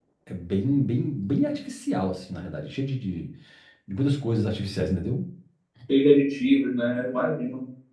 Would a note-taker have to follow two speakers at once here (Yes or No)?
No